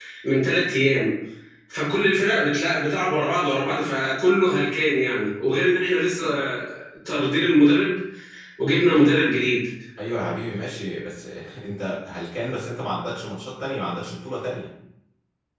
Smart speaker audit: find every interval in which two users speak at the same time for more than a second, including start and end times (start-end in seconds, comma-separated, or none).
none